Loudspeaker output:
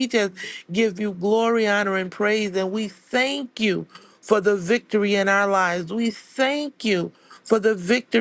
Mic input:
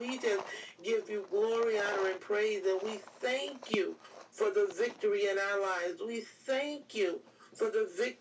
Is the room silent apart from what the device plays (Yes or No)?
Yes